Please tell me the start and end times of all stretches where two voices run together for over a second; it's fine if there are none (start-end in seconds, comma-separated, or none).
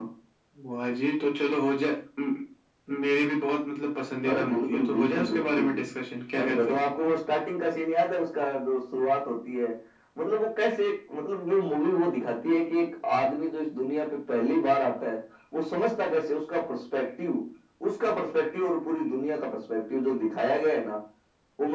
4.3-5.6